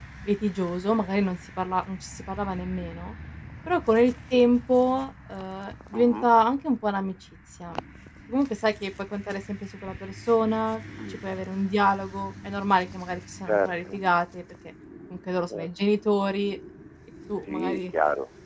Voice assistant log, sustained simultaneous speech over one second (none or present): none